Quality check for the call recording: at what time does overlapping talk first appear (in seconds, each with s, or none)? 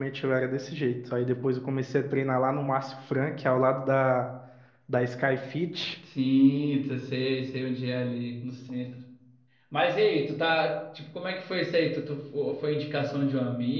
none